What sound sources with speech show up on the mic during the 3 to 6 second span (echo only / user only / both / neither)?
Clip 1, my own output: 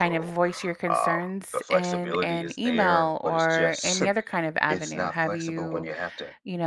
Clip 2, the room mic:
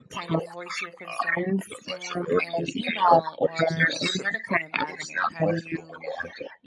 echo only